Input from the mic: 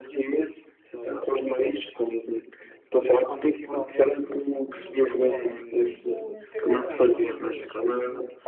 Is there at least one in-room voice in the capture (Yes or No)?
Yes